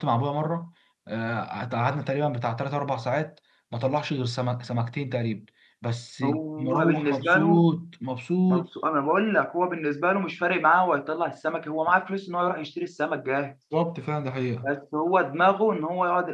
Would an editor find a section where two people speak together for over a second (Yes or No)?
Yes